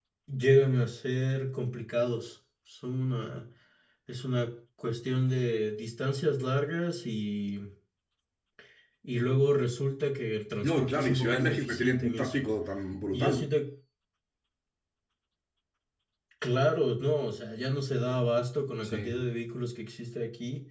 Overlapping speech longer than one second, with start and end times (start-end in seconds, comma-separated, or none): 10.6-12.3